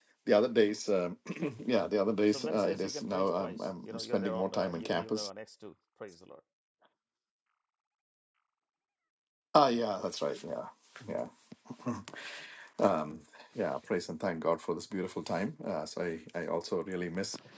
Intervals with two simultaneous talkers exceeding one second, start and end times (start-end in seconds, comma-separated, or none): 2.3-5.3